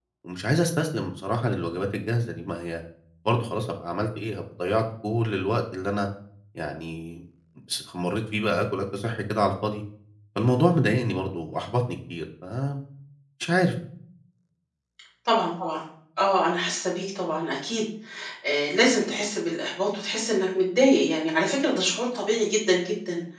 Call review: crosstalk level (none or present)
none